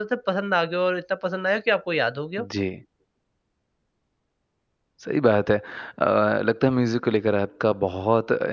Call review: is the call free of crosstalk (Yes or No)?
Yes